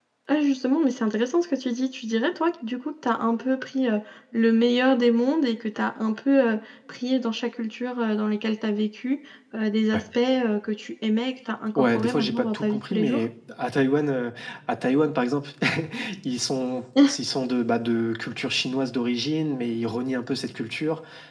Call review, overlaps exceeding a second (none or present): present